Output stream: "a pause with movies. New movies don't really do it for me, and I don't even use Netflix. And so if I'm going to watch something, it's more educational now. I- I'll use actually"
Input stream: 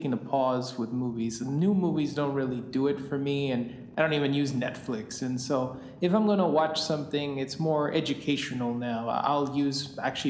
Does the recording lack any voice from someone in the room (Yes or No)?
Yes